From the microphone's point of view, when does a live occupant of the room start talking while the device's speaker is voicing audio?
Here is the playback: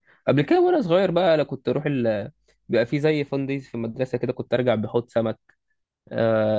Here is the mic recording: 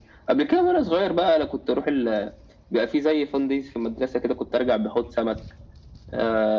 none

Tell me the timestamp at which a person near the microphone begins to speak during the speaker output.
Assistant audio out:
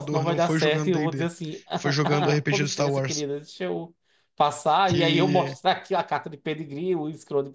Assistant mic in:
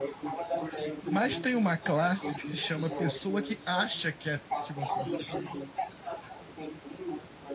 1 s

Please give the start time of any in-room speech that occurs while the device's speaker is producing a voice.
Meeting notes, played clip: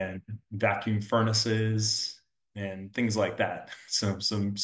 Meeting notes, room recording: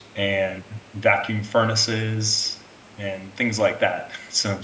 none

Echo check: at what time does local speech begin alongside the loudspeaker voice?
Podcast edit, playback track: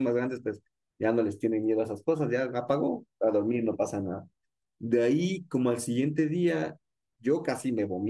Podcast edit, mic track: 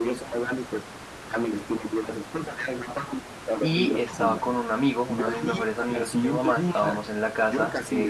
4 s

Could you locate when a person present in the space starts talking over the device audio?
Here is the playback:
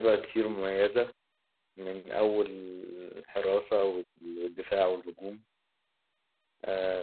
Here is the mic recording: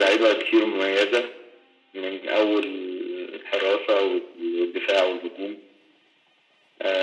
none

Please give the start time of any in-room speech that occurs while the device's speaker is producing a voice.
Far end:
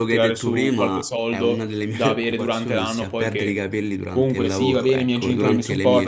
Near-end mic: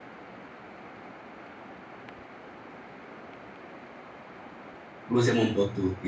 5 s

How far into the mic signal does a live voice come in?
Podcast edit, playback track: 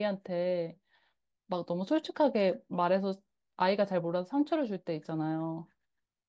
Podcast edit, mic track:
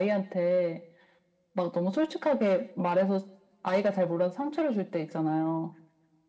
none

